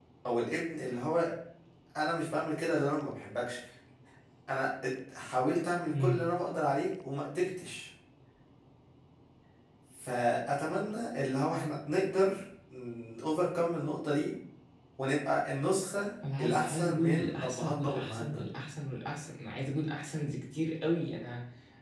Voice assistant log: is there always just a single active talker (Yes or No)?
No